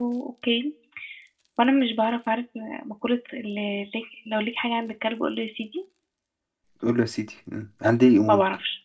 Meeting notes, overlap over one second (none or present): none